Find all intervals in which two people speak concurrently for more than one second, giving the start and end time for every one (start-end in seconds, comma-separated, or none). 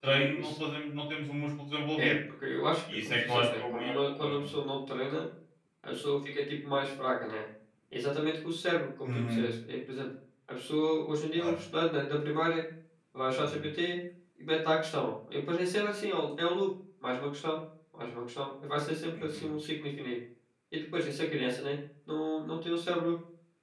3.0-4.4